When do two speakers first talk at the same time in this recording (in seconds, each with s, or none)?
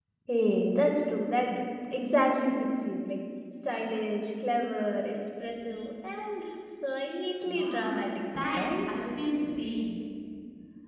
7.5 s